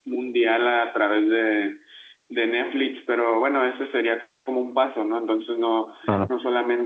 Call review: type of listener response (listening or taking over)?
listening